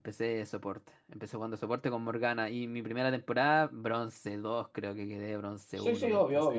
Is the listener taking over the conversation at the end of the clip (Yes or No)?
Yes